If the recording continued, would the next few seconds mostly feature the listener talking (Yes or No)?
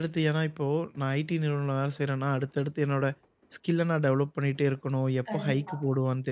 No